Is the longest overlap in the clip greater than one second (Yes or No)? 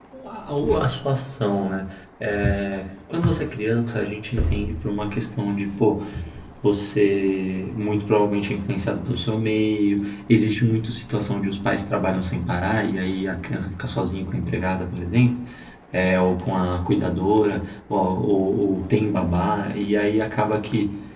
No